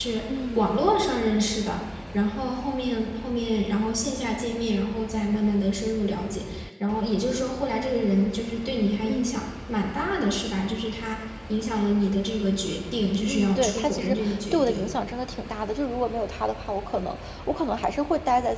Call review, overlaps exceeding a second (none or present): present